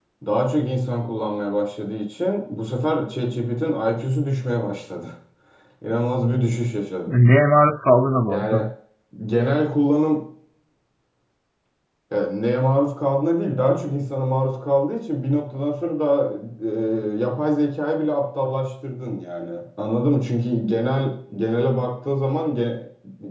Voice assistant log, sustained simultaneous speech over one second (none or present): none